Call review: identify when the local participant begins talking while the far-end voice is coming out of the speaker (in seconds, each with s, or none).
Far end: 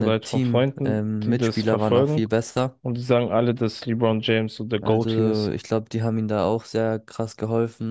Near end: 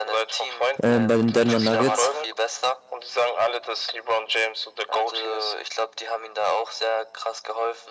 0.8 s